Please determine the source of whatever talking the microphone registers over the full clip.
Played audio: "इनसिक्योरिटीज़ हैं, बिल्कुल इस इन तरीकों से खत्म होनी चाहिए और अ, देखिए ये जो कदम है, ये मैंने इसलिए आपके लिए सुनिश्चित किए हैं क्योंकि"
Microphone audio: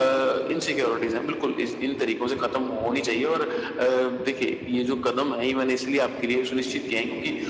echo only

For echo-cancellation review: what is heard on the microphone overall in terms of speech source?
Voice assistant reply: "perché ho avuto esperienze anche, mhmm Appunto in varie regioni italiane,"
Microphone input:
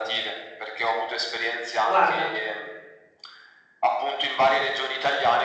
both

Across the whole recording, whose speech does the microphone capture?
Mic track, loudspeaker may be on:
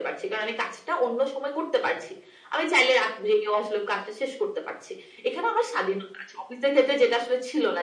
echo only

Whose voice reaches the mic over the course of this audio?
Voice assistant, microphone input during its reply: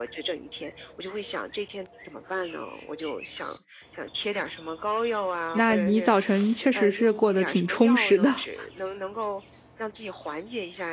both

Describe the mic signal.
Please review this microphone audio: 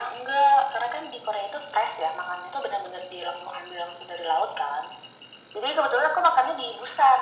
echo only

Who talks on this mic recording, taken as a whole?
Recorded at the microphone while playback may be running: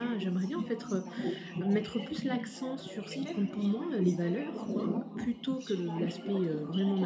both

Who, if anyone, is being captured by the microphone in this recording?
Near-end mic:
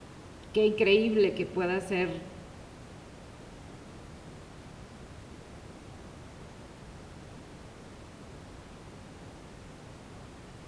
user only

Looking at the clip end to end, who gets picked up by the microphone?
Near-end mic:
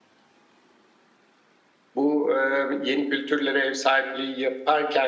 user only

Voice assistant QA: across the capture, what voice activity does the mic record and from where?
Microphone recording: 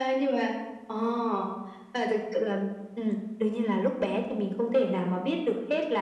echo only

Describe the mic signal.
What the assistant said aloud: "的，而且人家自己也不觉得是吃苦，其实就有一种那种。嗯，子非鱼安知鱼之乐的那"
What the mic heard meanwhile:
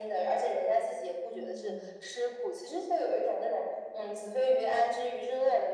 both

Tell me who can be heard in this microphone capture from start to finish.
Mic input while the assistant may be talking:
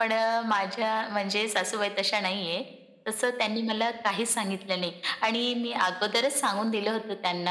echo only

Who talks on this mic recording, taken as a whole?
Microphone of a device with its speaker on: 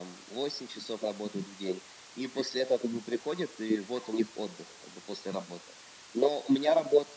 echo only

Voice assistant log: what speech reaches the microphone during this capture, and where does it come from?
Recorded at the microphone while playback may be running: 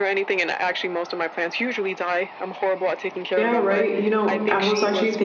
both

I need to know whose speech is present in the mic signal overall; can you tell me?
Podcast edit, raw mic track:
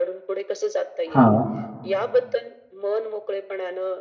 both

